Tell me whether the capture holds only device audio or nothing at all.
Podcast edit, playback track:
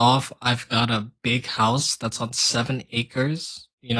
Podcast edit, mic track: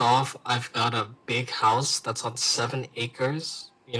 Yes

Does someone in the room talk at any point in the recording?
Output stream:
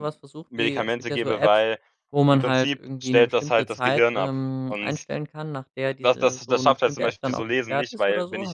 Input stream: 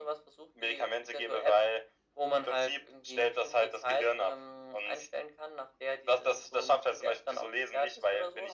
No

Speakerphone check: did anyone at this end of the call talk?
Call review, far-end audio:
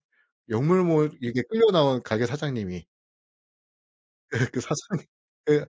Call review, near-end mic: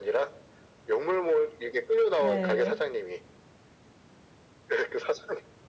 Yes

